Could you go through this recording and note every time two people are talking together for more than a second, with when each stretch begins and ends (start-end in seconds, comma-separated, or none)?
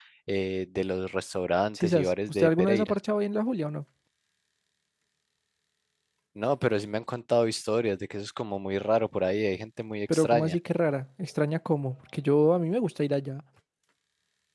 1.8-3.0